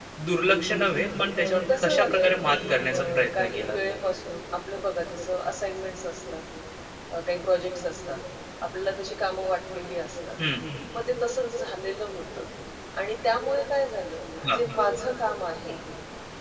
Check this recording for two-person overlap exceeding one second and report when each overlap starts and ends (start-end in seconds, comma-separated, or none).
1.4-3.8